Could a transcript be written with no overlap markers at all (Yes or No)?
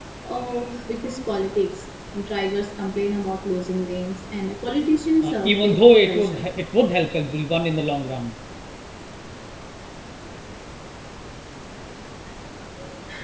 No